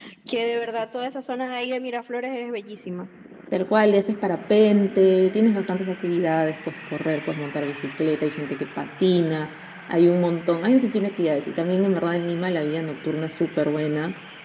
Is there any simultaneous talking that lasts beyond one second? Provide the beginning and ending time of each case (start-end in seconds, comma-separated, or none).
none